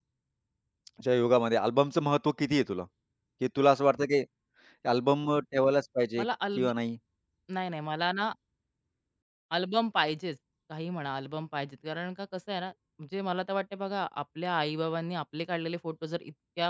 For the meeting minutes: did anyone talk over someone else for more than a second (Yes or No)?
No